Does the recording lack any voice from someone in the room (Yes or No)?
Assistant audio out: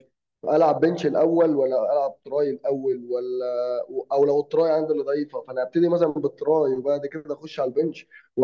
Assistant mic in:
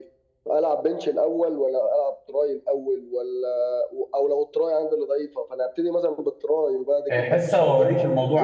No